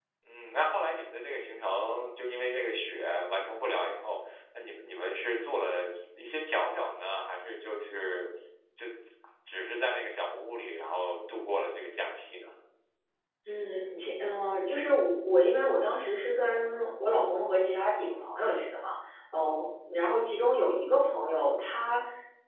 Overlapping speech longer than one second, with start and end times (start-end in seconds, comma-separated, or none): none